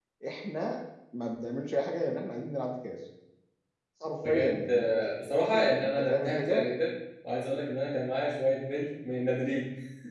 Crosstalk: present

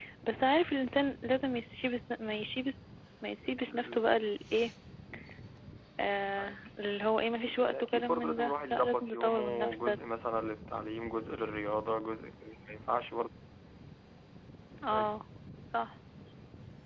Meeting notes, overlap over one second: present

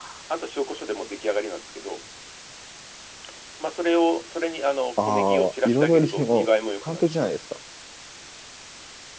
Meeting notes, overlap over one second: present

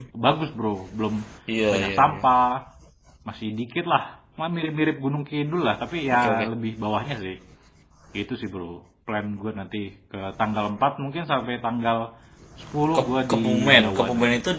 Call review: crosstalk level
present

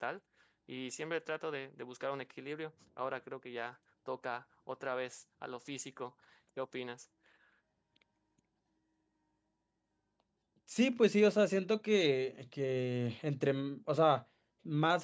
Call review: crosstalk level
none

